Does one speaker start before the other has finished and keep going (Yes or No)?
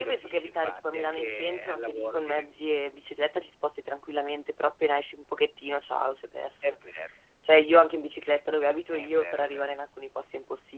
Yes